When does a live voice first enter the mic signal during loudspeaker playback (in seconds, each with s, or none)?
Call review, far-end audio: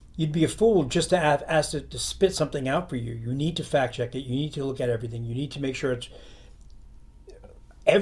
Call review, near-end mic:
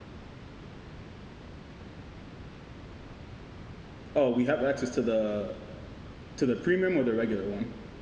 4.2 s